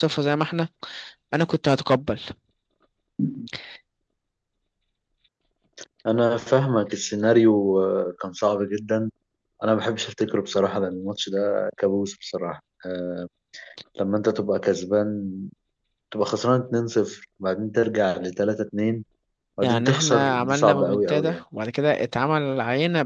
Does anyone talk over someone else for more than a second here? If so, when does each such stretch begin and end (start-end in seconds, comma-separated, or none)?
19.6-21.4